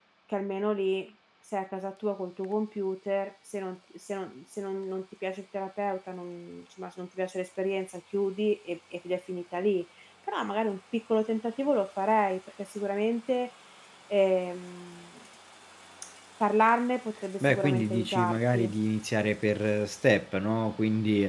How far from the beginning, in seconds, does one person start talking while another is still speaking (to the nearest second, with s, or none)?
17 s